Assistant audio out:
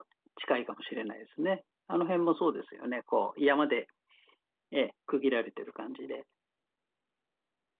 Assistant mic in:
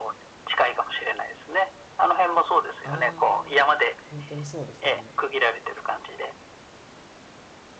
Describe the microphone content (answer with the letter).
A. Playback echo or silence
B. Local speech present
B